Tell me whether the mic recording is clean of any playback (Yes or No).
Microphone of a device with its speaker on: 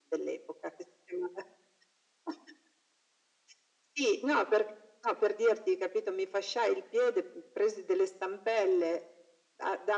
No